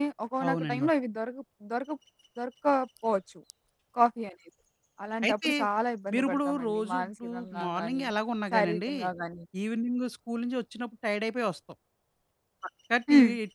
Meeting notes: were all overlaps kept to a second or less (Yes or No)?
No